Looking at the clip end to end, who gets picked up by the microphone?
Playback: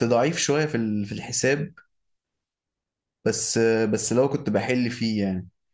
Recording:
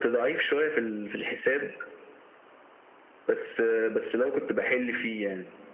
echo only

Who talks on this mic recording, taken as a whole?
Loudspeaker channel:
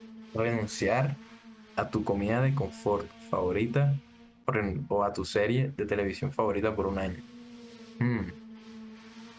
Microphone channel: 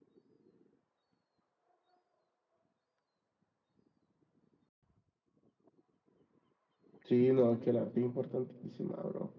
user only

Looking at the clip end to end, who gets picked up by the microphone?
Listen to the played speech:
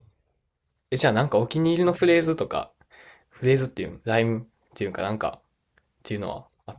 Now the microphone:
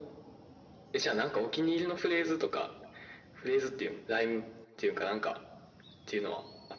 echo only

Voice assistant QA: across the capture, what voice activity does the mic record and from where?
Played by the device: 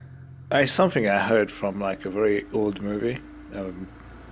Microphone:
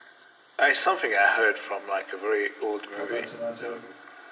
both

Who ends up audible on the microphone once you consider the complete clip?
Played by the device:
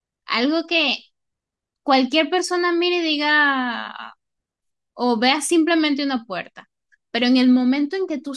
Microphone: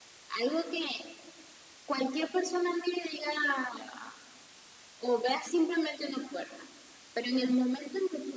echo only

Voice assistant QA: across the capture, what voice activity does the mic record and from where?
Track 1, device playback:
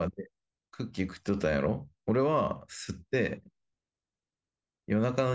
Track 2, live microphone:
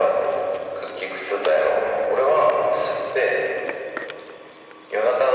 echo only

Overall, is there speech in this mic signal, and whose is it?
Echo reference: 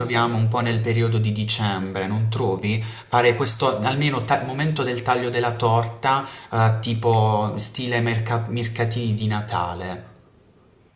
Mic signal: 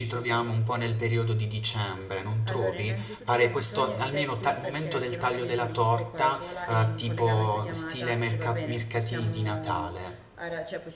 both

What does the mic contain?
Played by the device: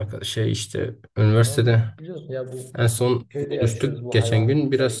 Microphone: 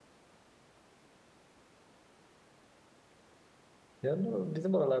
user only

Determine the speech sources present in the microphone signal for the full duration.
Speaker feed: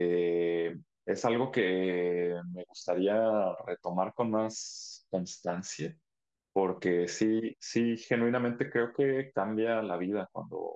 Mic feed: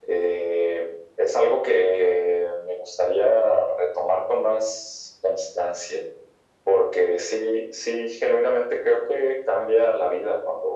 echo only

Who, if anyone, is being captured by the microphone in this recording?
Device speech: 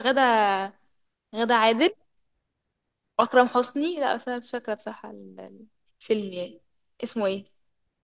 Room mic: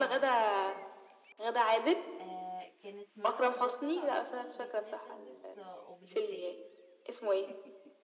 both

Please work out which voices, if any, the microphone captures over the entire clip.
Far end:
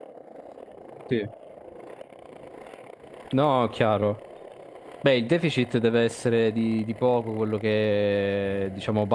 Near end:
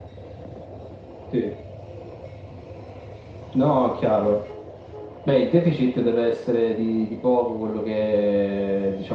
echo only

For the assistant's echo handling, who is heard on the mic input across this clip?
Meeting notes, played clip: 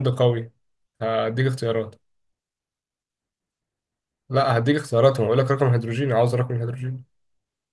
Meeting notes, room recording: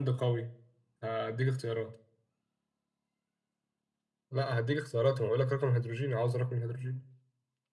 echo only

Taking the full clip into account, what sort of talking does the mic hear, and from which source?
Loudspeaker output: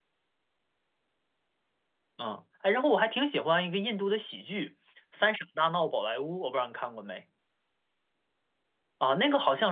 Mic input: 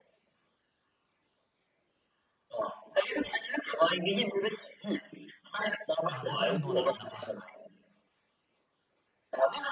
both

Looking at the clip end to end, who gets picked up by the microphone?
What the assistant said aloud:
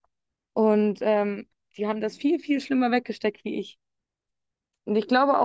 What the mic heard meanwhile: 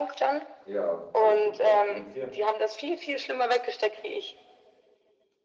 both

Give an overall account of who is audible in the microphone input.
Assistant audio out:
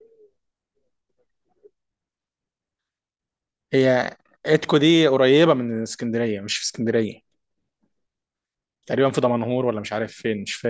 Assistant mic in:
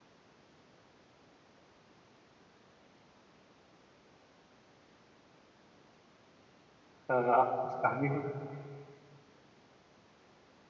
user only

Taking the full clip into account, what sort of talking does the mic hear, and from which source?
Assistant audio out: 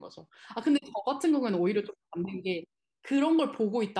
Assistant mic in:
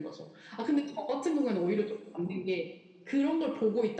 echo only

